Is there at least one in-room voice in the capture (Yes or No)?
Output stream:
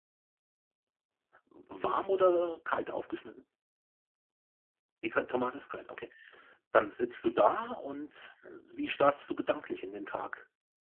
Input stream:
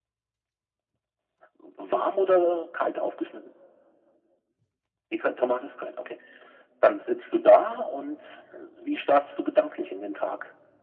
No